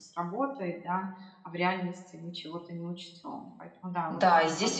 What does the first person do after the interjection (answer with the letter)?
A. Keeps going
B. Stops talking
B